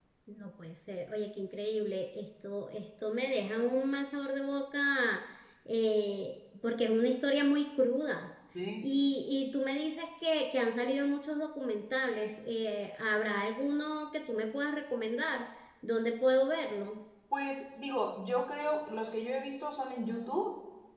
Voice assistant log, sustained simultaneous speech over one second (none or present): none